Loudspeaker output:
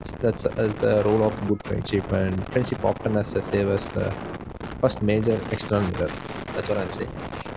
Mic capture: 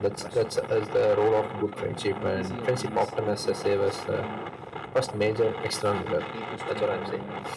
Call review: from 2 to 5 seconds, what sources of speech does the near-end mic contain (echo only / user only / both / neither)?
both